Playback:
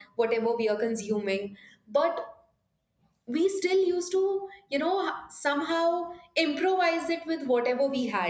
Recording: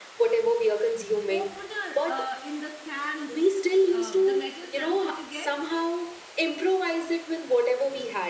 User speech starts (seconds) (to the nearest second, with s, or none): 1 s